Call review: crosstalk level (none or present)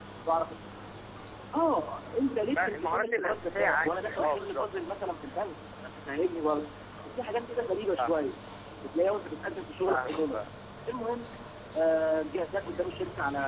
present